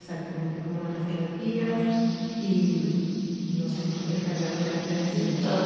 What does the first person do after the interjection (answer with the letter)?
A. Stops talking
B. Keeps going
A